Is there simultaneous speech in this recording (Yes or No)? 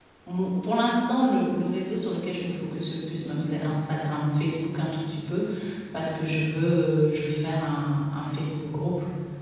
No